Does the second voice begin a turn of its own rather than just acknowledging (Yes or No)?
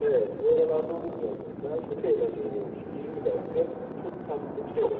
No